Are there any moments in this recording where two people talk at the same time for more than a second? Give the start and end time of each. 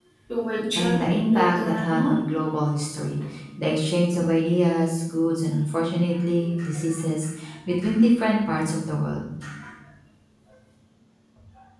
0.8-2.1

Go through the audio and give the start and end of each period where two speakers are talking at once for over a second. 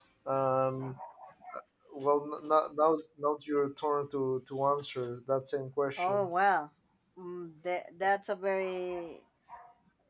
none

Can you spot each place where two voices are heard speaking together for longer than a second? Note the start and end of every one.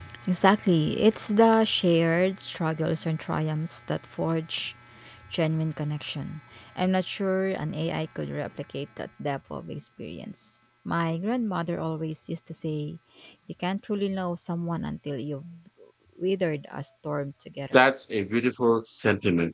none

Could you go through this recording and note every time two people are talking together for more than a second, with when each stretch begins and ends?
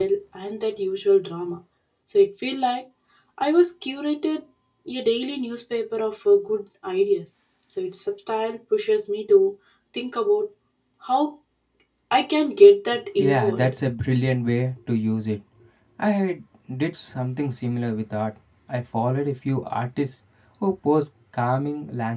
none

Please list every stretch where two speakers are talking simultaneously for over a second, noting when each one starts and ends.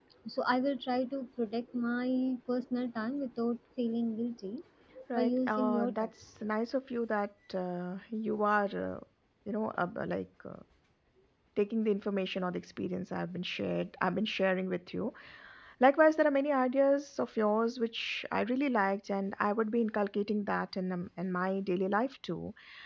5.1-6.3

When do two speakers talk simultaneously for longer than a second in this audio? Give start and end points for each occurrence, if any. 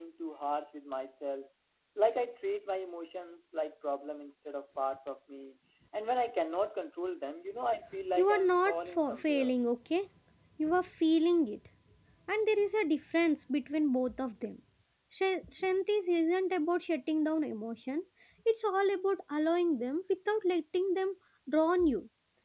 8.2-9.5

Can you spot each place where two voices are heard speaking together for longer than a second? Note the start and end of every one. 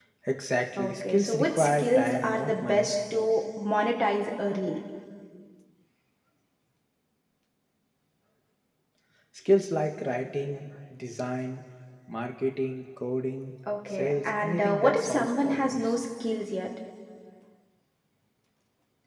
0.8-2.9, 13.9-15.9

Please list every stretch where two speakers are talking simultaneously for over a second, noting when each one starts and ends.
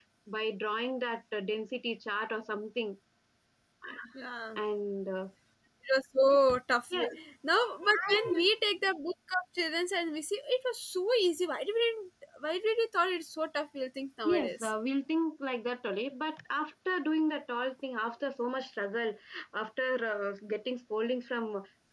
none

